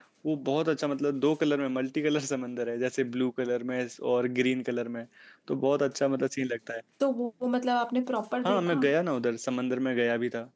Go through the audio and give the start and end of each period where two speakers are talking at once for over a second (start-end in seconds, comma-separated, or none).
none